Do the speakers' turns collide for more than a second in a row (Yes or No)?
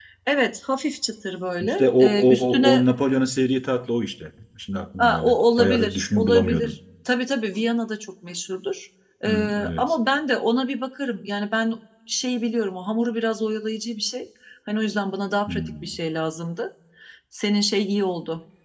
Yes